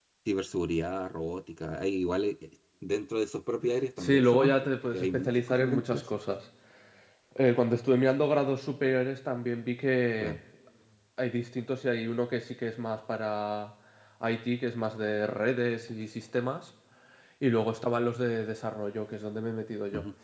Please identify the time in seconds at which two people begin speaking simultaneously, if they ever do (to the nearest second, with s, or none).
4 s